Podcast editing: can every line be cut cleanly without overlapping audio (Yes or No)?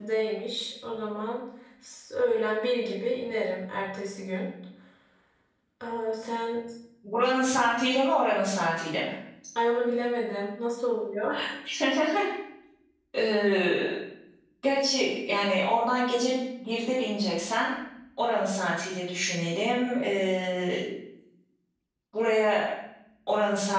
Yes